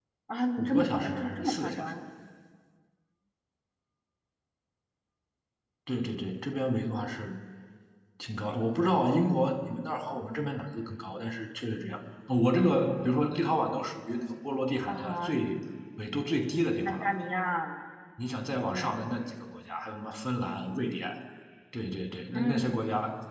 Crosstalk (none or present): present